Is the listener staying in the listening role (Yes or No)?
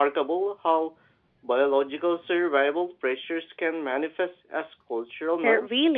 No